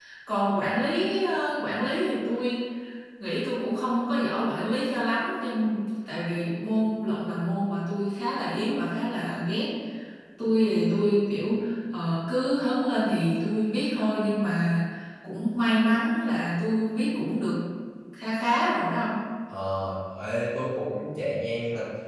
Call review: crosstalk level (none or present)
none